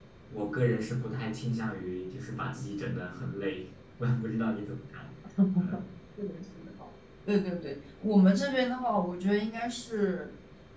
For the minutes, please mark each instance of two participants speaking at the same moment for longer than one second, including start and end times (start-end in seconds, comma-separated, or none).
none